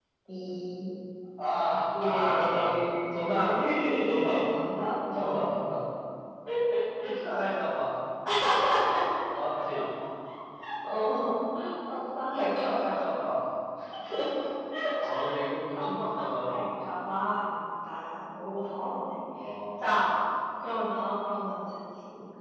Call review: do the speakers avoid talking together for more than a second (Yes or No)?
No